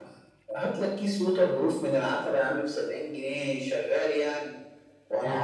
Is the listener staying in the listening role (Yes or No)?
Yes